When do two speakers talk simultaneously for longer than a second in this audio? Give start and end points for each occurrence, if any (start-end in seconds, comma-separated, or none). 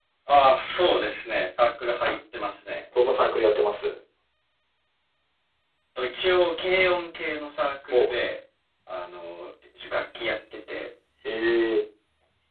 none